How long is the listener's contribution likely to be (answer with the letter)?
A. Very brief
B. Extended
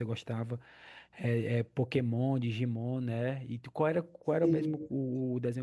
A